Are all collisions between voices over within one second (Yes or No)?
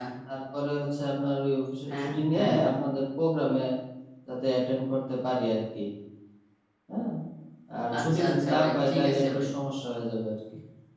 No